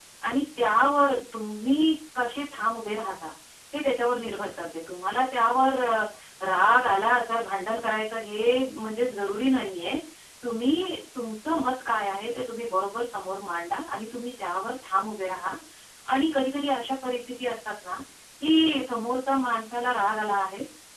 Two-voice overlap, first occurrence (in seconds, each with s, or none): none